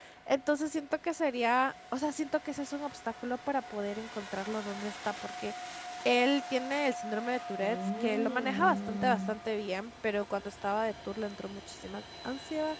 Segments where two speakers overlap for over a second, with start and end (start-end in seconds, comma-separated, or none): 7.6-9.4